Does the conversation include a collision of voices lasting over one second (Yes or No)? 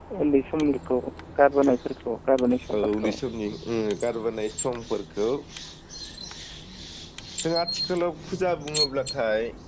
No